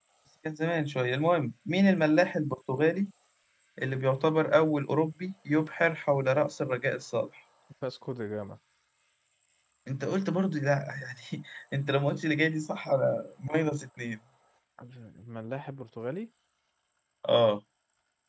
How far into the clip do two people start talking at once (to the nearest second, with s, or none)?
none